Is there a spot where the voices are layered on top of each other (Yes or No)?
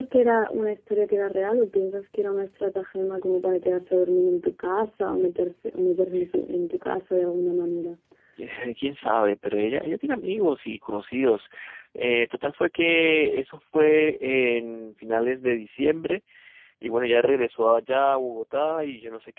No